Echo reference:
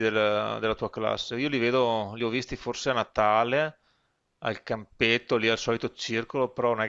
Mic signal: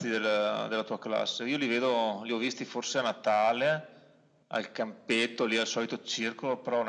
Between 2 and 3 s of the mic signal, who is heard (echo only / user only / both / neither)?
echo only